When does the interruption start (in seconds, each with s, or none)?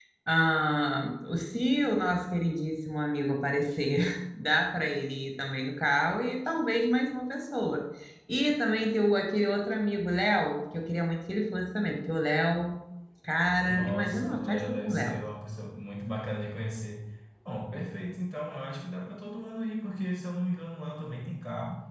13.7 s